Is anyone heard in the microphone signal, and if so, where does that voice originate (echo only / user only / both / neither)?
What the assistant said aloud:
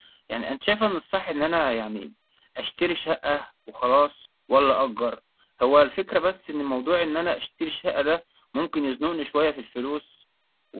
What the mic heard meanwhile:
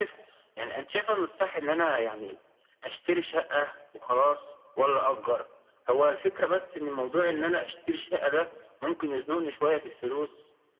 echo only